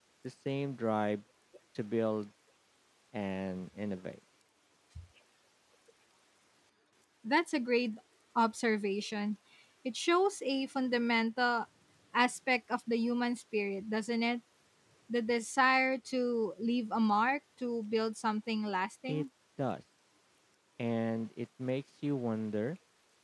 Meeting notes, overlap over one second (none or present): none